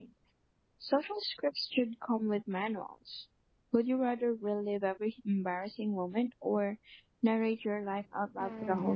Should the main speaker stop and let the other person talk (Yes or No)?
Yes